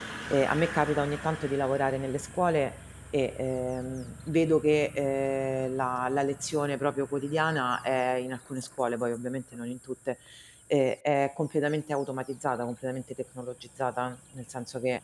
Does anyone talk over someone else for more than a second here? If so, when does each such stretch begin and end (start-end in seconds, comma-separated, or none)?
none